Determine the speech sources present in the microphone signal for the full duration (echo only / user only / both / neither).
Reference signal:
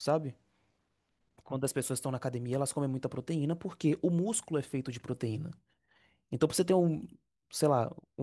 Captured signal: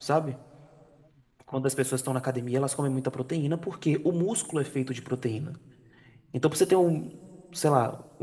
echo only